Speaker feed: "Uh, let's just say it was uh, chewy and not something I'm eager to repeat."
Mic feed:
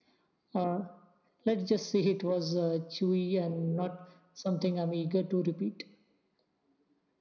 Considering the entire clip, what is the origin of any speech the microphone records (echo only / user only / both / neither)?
echo only